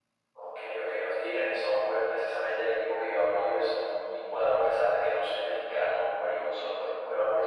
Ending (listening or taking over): listening